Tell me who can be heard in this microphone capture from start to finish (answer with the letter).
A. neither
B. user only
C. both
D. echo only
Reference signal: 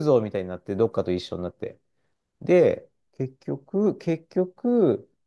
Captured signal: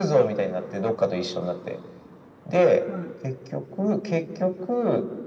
C